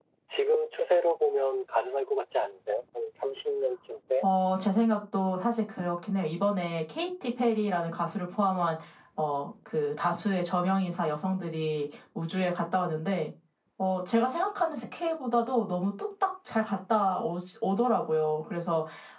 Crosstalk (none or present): none